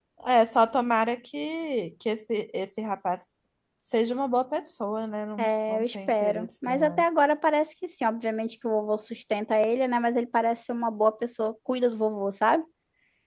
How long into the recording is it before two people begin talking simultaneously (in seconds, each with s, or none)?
5.4 s